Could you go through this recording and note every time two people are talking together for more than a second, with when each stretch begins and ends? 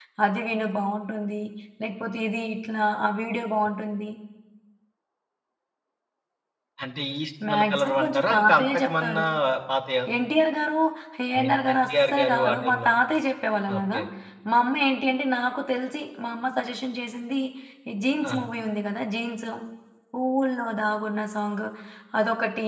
7.5-9.2, 11.3-13.0

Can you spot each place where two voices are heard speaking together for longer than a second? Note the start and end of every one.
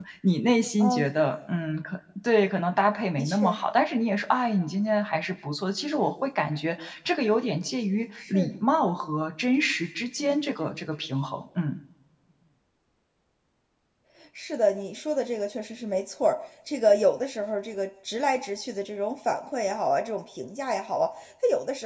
none

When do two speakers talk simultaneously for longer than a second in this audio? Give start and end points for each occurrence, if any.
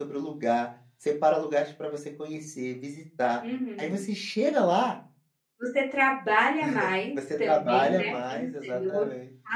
7.4-9.0

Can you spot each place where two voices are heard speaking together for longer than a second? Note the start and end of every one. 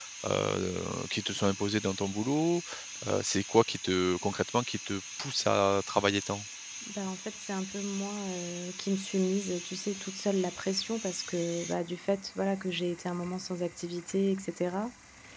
none

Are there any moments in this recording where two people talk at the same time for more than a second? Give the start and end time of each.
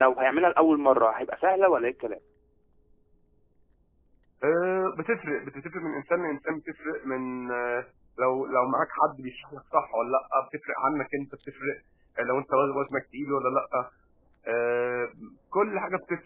none

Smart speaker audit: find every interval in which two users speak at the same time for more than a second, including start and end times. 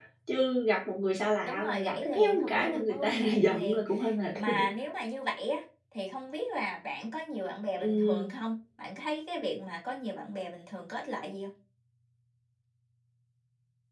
1.5-3.8

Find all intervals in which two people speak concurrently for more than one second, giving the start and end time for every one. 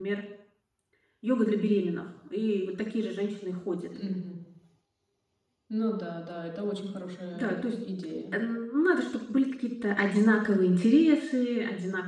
none

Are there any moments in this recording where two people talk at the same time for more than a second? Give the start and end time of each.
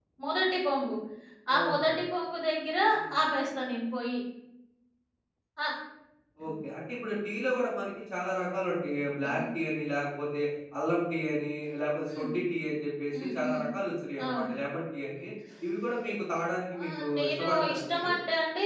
16.8-18.1

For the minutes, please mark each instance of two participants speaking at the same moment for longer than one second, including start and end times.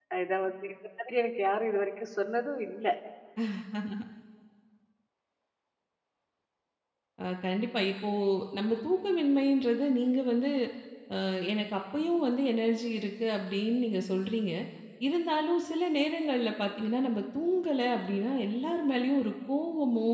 none

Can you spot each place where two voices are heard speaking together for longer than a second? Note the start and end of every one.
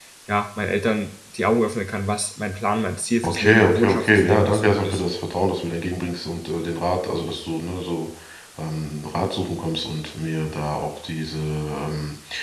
3.2-5.2

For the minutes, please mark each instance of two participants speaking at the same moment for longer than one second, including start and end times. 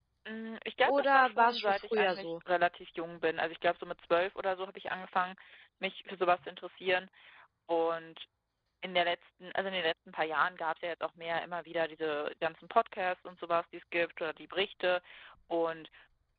0.8-2.3

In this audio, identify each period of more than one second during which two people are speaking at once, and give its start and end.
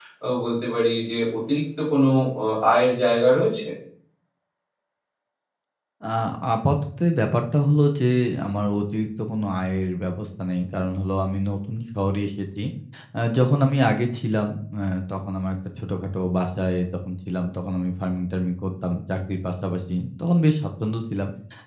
none

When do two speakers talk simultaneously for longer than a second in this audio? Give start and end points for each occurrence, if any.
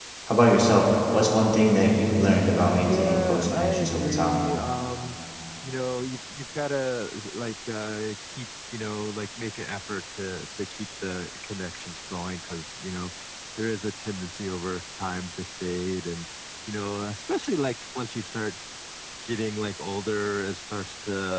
2.8-4.4

